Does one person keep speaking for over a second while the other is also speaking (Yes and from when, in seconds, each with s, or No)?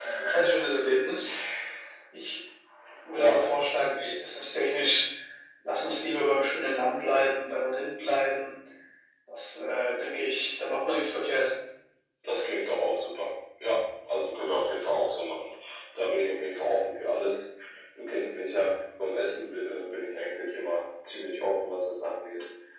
No